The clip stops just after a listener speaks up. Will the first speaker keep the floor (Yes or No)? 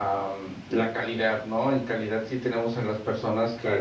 Yes